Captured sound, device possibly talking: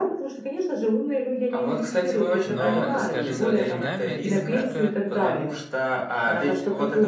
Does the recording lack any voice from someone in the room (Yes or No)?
No